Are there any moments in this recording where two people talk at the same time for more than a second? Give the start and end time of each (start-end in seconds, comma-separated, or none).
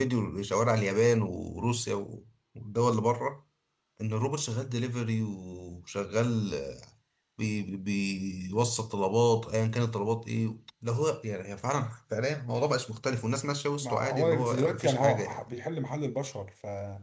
13.8-15.5